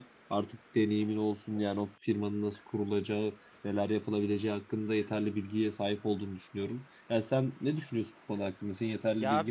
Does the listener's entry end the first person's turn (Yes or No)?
Yes